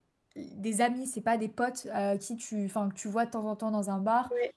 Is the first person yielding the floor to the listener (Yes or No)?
No